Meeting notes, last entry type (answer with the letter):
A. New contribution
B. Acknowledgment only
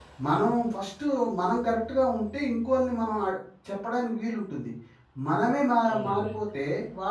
B